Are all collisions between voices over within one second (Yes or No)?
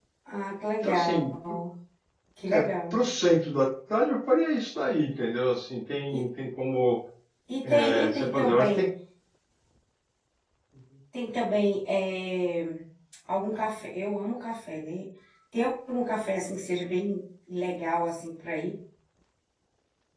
No